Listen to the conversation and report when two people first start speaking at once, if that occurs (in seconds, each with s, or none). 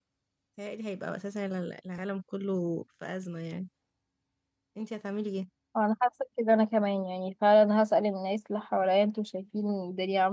none